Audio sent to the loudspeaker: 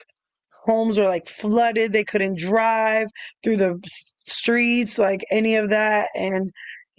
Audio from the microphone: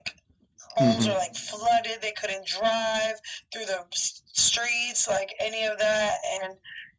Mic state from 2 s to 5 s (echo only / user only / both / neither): echo only